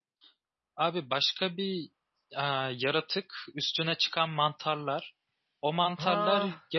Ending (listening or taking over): listening